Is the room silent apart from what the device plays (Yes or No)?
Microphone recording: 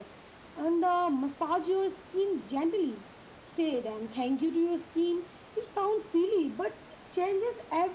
Yes